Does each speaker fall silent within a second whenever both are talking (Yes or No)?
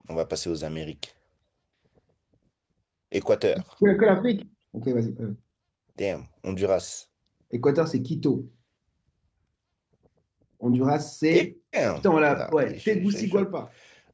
No